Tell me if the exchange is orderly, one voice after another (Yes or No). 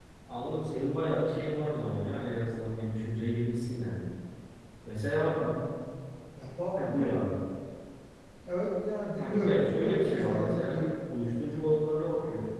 No